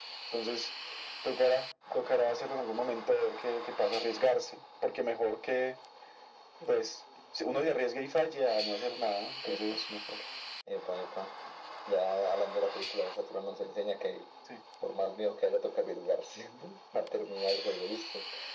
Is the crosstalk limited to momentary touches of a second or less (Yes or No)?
Yes